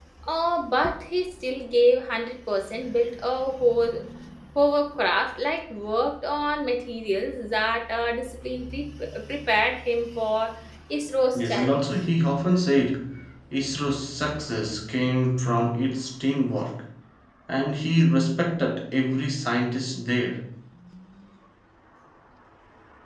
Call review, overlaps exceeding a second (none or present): none